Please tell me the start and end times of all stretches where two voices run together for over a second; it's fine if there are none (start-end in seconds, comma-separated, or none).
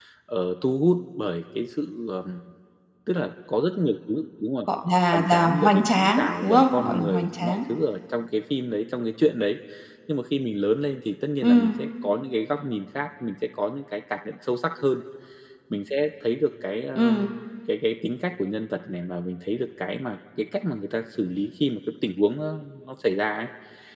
5.1-7.6